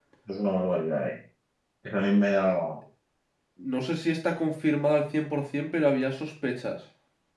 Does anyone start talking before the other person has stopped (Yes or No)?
No